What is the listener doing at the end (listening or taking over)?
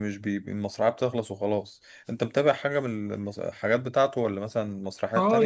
taking over